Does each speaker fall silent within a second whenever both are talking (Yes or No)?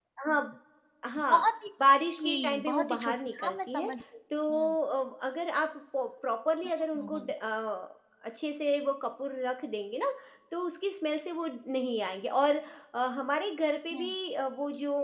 No